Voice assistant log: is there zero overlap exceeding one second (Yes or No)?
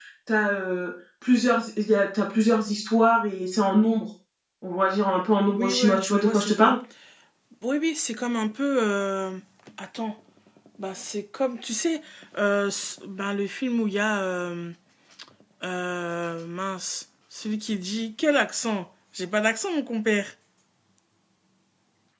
No